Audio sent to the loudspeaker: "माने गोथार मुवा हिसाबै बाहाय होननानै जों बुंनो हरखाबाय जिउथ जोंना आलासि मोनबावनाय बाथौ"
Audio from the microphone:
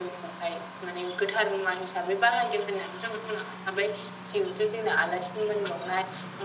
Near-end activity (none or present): none